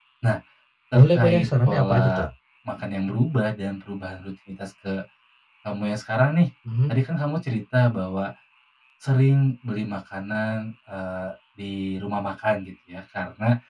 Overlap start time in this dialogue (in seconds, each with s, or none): 0.9 s